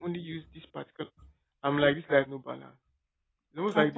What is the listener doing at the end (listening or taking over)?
listening